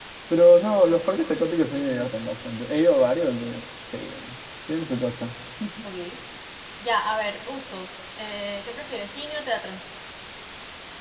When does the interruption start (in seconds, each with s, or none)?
none